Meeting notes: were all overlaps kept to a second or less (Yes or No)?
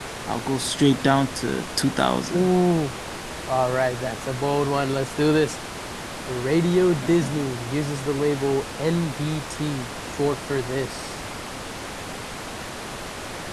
Yes